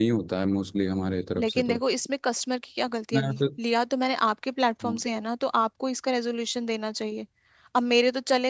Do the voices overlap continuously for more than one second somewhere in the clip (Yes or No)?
No